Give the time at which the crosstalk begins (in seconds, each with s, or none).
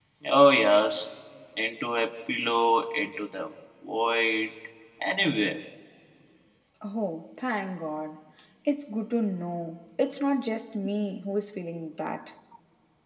none